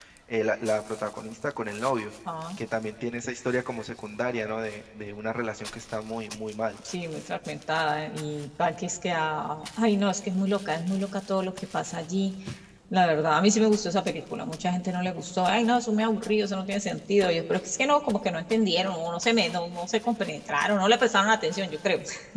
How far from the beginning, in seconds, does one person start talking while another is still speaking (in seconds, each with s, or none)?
none